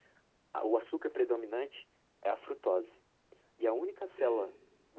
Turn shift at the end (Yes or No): No